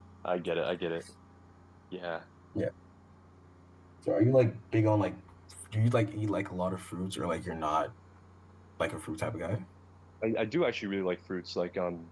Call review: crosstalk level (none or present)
none